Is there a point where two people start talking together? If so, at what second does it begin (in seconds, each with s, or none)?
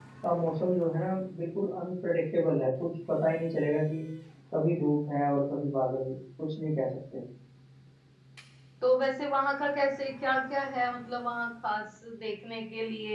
none